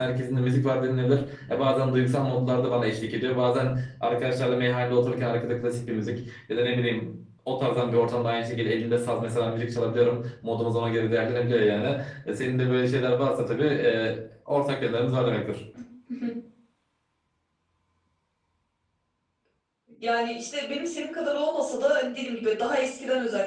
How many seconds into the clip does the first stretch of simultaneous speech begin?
none

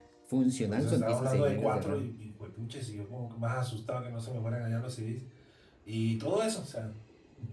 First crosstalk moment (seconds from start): 0.7 s

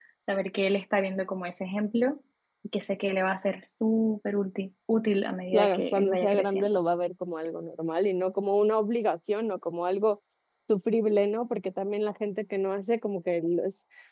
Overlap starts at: 5.5 s

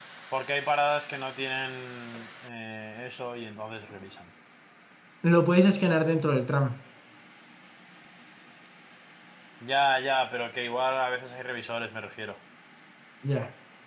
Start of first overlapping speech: none

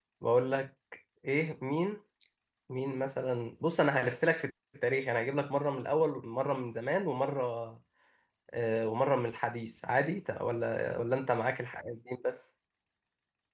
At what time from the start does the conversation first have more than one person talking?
none

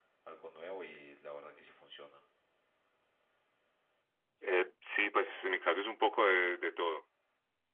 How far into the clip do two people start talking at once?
none

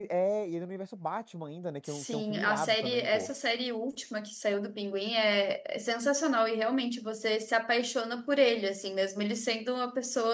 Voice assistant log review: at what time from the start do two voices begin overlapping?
1.9 s

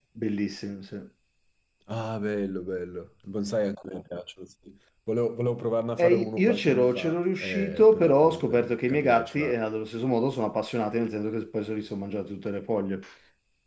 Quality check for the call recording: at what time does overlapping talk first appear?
6.0 s

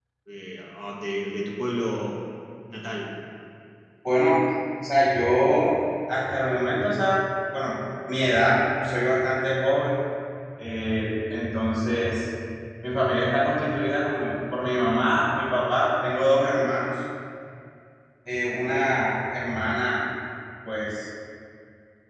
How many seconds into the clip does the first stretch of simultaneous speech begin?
none

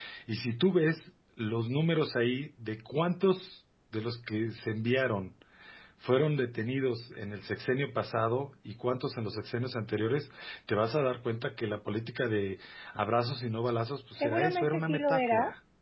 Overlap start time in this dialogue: 14.2 s

